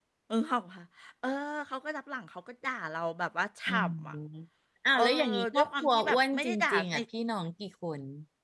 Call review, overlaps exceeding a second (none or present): present